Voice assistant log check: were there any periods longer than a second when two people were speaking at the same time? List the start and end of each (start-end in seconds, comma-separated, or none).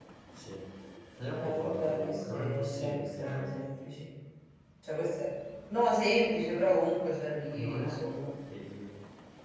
1.4-3.5